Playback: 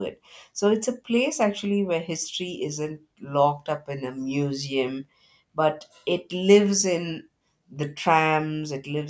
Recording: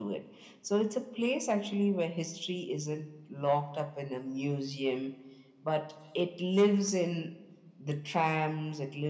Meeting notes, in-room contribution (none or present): none